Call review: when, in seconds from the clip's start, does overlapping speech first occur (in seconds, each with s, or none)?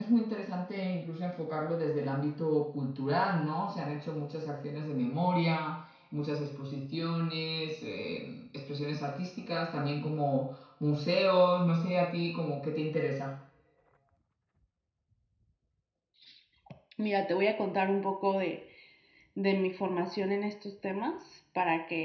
none